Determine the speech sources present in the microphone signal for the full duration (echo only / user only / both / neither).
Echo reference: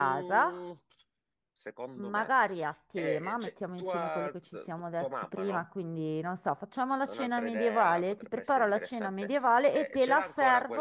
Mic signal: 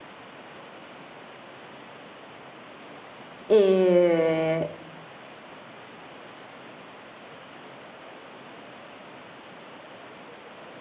user only